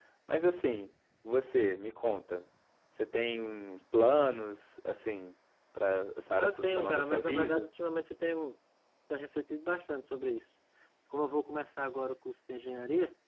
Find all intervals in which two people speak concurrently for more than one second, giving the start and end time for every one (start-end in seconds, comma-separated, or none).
6.4-7.7